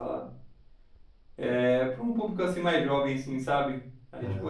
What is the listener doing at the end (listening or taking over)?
listening